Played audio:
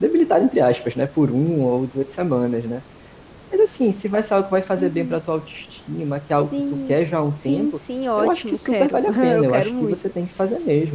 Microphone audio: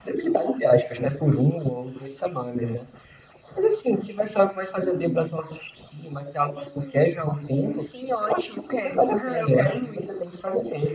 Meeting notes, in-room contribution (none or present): none